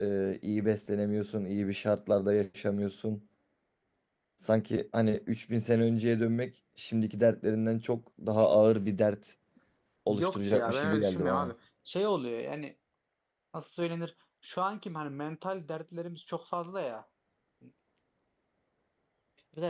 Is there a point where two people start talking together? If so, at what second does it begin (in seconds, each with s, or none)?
10.1 s